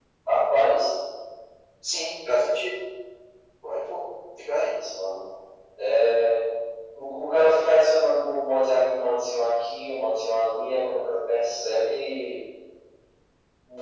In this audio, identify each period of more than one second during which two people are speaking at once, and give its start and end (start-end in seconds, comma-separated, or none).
none